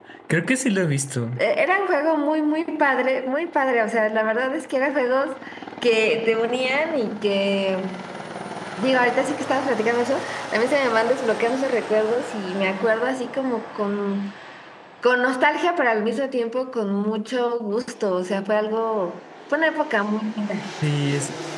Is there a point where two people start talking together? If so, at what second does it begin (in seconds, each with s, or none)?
none